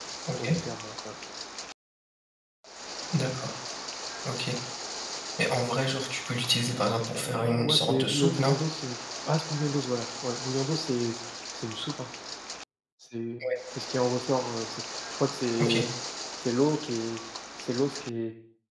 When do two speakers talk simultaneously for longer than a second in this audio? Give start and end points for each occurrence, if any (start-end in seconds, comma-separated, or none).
7.1-8.5